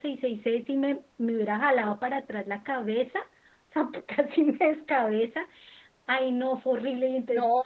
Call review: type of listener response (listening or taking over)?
listening